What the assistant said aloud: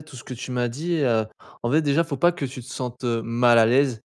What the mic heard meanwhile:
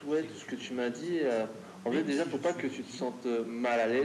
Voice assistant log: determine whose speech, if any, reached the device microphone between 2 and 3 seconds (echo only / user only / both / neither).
both